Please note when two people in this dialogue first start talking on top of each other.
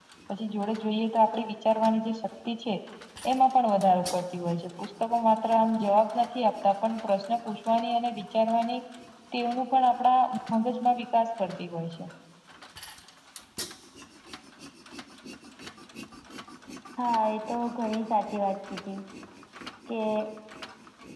none

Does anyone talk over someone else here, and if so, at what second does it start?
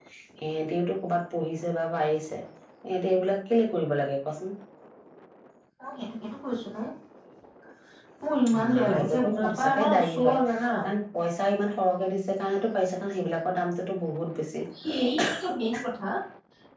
8.6 s

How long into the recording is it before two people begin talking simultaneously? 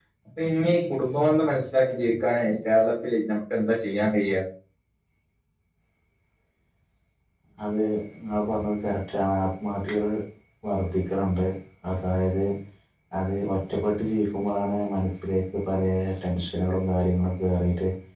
none

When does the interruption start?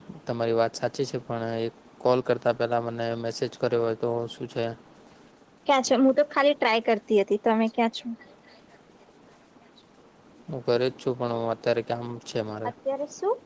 none

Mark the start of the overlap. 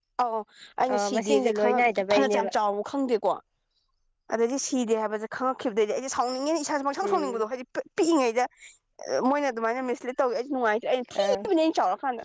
0.9 s

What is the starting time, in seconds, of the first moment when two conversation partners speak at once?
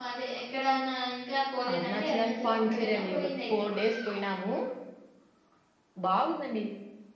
1.7 s

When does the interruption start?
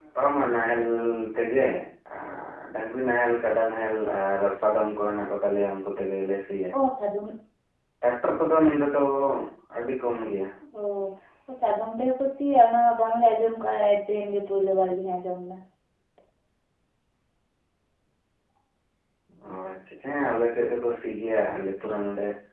none

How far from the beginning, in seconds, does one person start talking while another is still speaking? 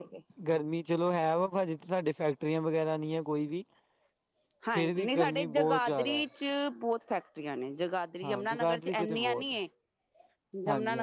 4.8 s

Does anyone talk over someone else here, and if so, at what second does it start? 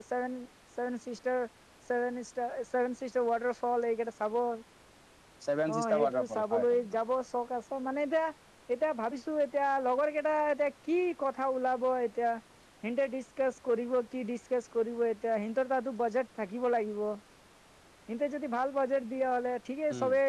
5.7 s

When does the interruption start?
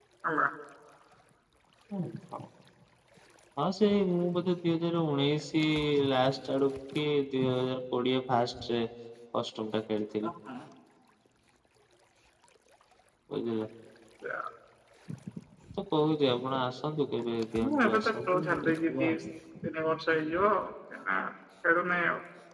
17.6 s

